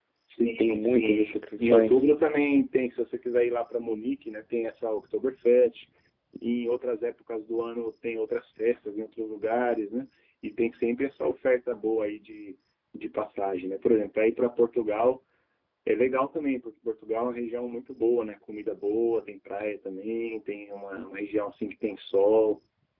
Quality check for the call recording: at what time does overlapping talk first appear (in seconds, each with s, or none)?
0.6 s